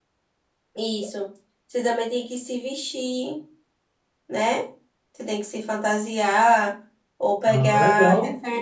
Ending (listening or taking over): listening